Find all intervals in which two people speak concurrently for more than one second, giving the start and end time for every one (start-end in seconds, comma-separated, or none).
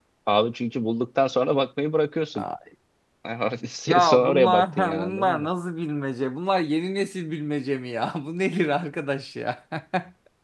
3.9-5.5